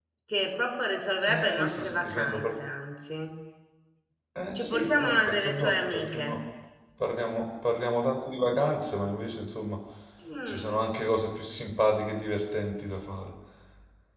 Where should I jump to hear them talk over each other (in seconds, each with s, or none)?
1.3 s